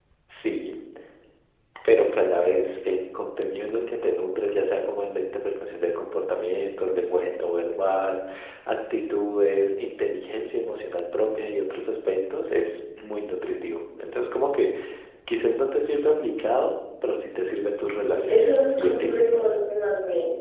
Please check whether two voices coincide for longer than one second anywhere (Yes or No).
Yes